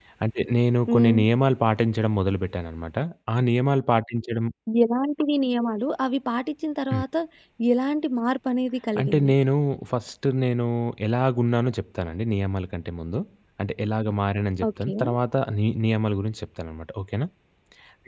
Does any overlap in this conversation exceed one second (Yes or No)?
No